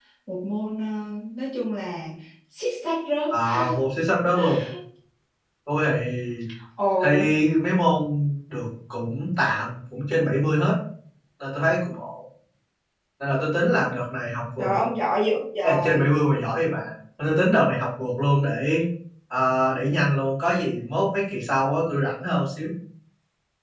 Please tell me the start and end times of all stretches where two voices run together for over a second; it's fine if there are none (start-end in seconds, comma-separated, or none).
none